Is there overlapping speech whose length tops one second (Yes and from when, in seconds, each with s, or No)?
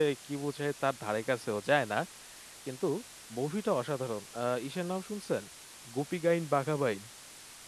No